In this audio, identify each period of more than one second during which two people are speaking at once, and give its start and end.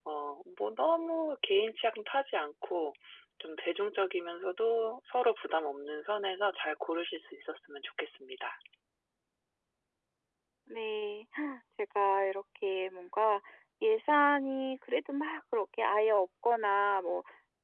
none

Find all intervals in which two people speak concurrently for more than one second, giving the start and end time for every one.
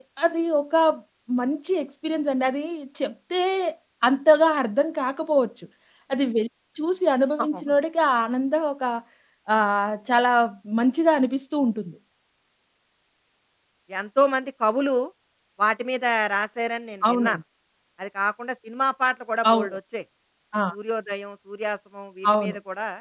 none

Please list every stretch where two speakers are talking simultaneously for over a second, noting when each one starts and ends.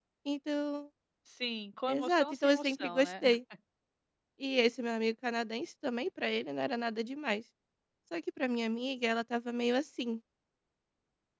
1.9-3.4

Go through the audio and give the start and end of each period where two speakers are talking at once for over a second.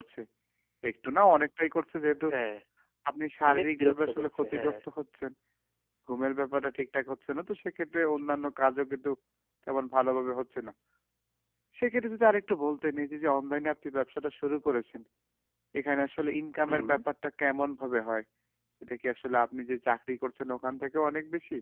3.5-4.8

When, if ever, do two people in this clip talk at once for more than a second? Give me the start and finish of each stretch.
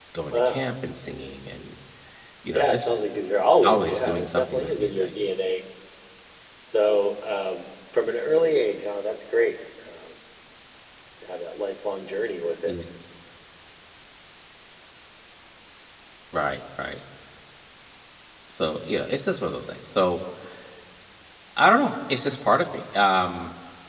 3.6-5.1

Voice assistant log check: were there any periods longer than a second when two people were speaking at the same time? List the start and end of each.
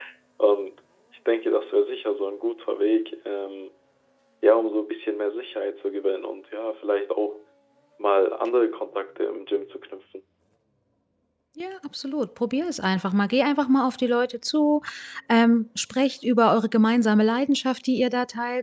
none

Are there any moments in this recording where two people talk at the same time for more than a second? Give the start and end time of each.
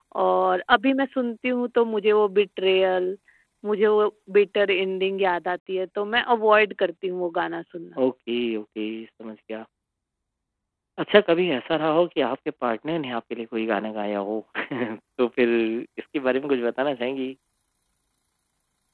none

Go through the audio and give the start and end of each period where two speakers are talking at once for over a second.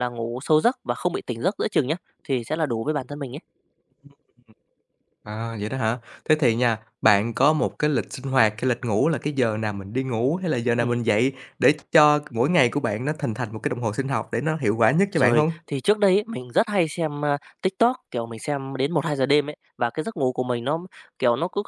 none

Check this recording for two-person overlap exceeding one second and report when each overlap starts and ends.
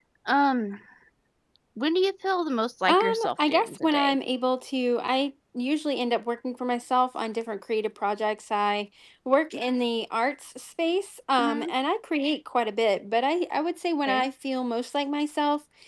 2.9-4.2

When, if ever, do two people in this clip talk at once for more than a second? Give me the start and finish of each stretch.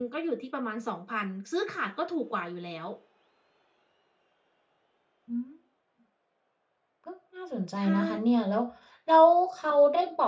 none

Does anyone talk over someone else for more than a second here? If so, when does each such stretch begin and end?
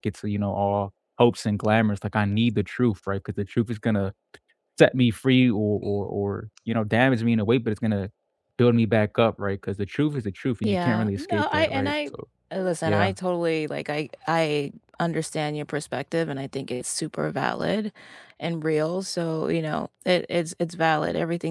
10.6-11.9

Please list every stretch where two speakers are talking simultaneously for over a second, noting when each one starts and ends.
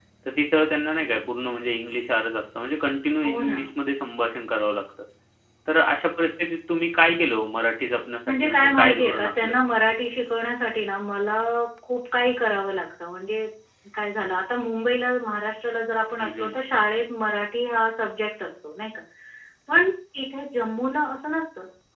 8.3-9.5

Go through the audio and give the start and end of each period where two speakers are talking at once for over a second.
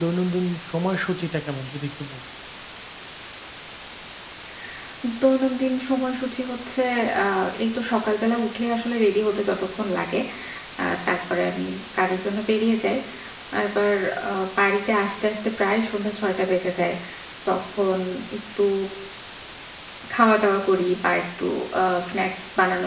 none

